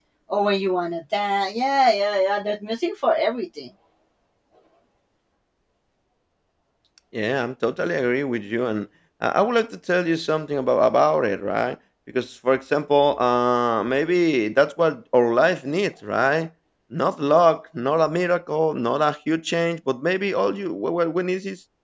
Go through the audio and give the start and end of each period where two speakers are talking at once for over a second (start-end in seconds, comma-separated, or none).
none